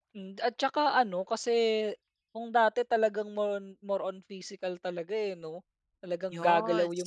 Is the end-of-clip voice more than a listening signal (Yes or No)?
No